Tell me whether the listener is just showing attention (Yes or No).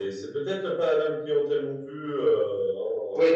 No